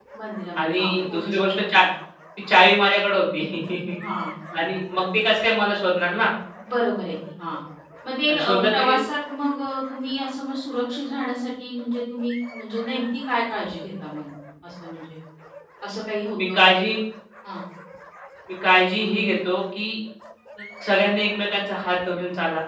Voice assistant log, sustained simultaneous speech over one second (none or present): present